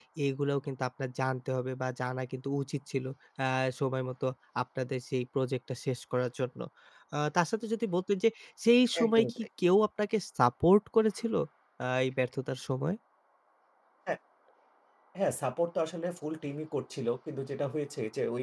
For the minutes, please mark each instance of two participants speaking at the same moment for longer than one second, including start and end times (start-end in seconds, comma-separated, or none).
none